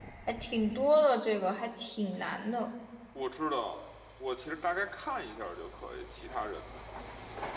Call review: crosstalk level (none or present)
none